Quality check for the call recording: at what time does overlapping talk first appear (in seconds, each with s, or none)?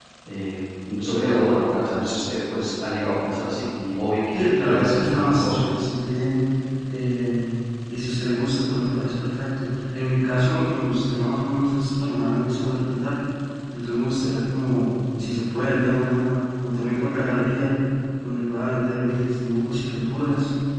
4.3 s